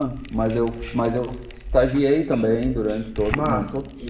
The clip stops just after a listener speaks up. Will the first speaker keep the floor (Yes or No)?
Yes